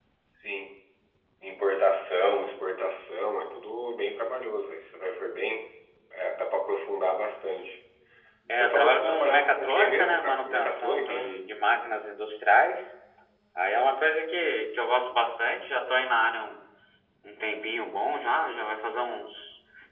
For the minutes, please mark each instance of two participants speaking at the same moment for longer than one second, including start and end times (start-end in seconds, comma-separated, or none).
8.5-11.4